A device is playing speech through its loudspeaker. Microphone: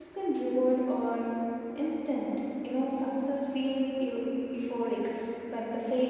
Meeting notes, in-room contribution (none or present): present